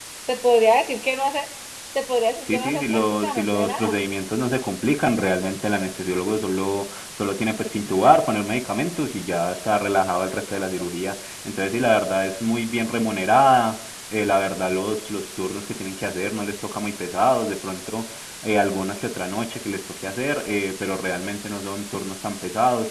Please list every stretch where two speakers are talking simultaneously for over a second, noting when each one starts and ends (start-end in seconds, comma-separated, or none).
2.5-4.0